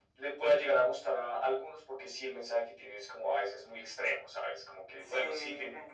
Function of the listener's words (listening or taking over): taking over